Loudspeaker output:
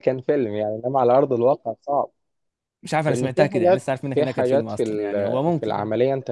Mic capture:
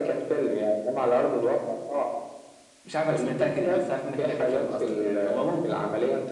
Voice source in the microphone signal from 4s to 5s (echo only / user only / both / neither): echo only